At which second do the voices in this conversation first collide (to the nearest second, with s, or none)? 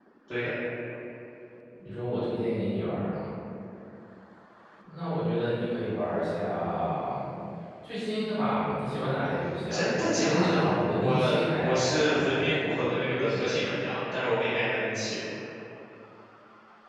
10 s